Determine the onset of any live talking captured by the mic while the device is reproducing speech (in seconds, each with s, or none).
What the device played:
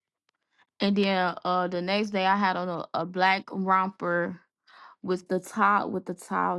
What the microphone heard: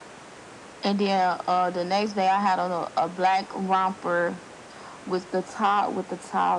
none